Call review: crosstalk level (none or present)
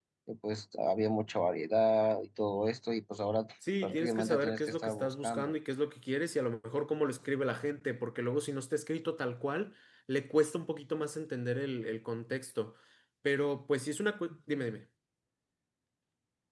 present